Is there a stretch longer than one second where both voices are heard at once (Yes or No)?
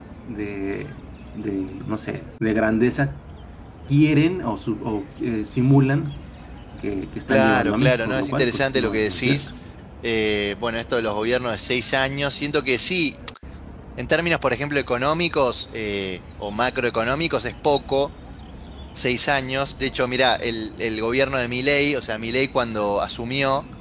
Yes